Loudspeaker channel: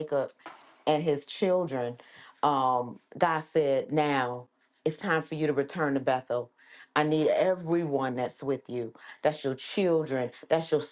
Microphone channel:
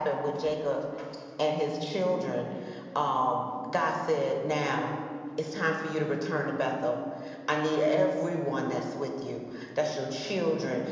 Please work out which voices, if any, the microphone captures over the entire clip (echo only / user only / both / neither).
echo only